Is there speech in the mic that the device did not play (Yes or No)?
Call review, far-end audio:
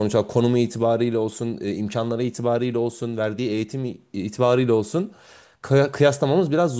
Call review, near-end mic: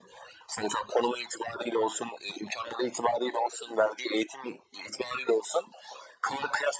No